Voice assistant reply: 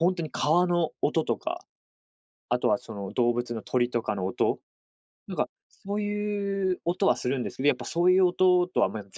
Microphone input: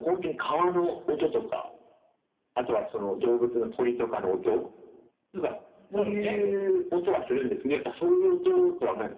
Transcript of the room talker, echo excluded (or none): そうっすね。